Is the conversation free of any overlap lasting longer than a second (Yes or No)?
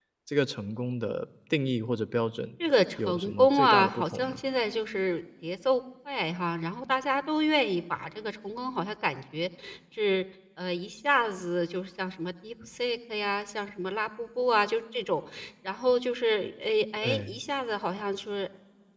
No